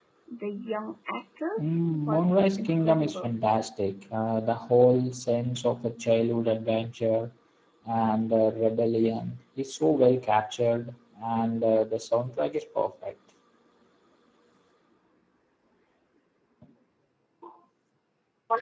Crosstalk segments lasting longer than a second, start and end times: 1.6-3.3

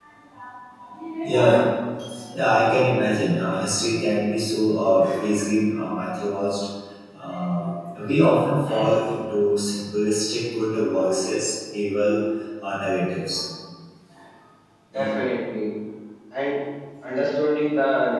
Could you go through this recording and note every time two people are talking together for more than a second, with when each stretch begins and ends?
none

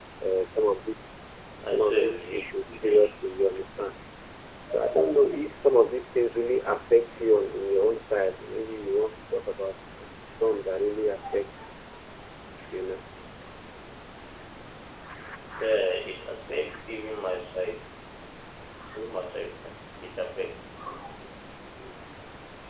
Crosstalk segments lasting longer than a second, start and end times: 1.7-3.1

